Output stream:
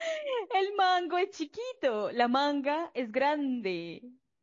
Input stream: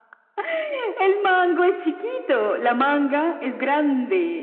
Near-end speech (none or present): none